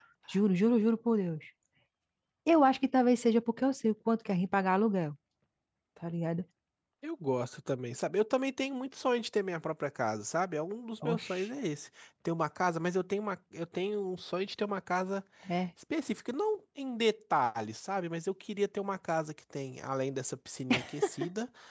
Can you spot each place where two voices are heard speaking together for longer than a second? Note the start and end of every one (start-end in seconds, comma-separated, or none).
none